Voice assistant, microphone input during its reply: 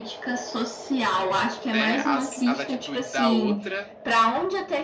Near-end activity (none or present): present